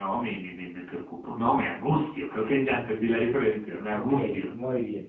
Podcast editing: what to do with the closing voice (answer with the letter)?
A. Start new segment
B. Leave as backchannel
A